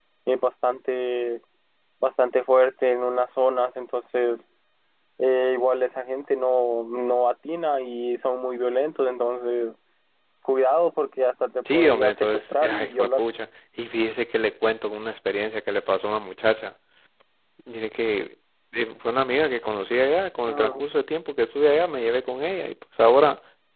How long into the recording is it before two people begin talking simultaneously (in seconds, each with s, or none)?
11.7 s